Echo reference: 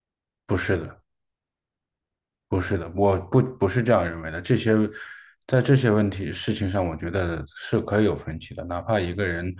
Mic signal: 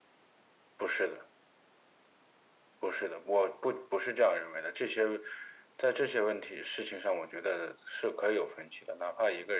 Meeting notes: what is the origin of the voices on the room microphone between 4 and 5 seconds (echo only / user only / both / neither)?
echo only